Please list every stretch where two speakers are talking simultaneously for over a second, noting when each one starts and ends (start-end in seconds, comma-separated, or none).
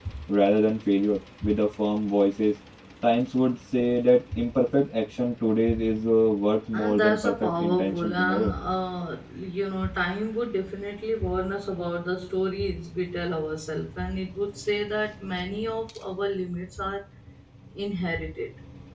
6.7-8.5